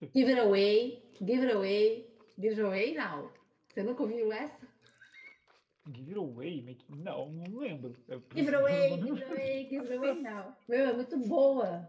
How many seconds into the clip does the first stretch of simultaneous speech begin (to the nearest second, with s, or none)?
8 s